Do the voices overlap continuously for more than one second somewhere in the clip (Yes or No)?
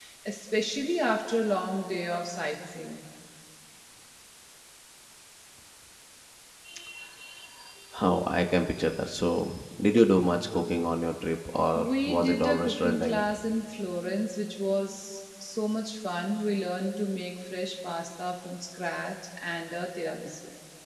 Yes